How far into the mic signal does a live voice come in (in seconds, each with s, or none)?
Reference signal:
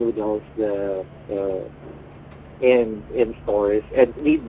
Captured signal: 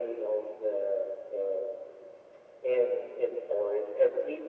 none